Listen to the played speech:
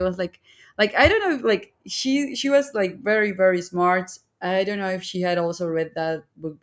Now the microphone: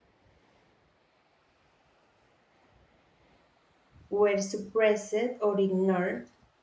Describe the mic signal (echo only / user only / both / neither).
user only